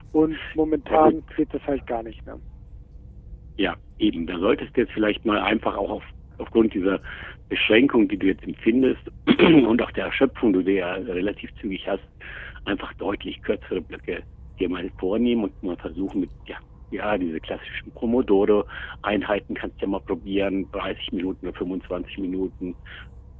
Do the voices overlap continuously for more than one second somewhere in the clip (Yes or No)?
No